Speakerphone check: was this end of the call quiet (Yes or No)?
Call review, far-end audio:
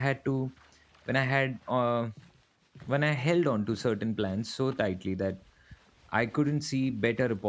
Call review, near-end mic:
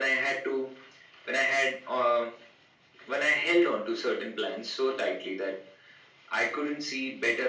Yes